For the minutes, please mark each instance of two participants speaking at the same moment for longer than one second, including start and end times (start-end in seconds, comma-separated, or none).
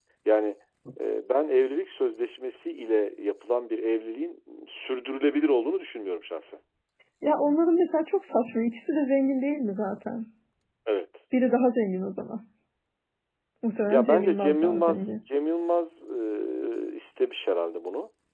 13.9-15.2